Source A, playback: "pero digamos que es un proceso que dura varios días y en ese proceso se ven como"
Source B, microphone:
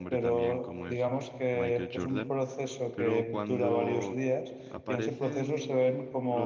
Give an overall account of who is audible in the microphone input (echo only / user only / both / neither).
both